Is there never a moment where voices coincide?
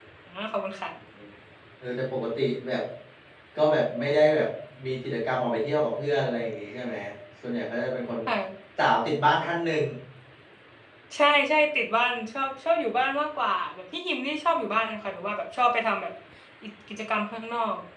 Yes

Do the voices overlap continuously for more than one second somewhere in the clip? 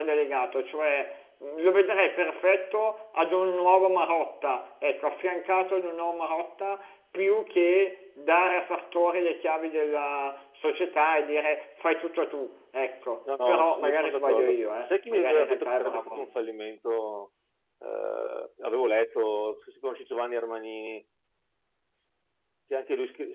Yes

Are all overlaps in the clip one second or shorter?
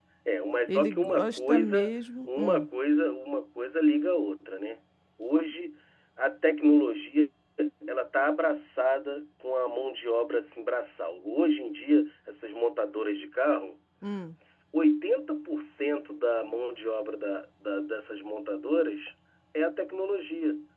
No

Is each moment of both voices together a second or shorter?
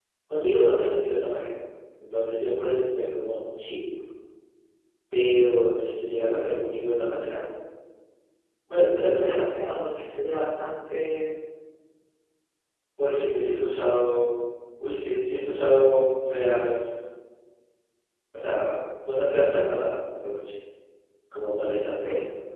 Yes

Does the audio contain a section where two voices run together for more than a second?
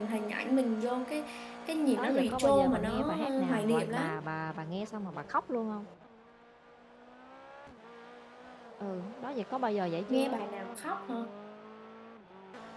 Yes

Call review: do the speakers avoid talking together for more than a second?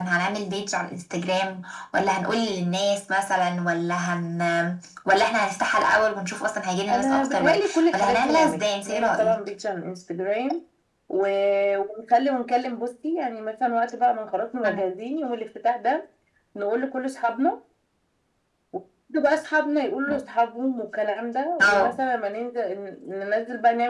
No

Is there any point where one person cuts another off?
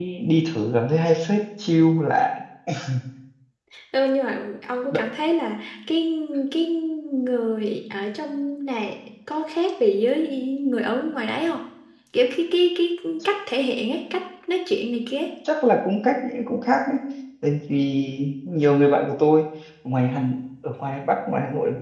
No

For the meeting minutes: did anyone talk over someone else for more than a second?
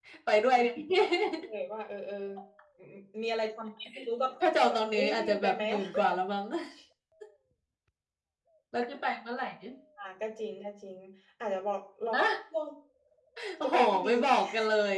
Yes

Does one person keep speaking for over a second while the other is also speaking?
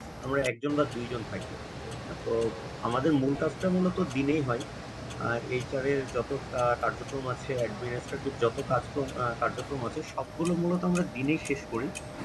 No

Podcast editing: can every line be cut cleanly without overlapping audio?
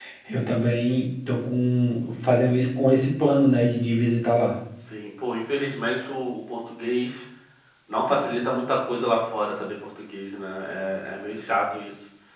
Yes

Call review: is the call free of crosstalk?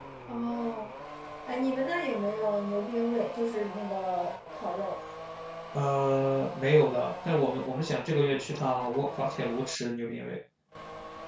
Yes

